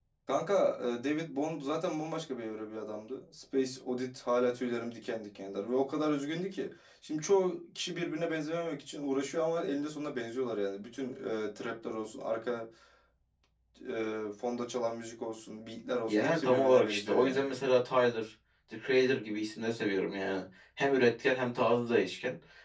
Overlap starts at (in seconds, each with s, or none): 16.1 s